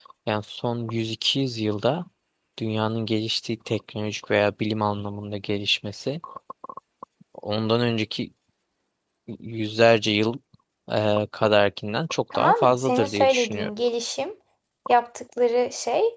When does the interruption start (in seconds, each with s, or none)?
12.3 s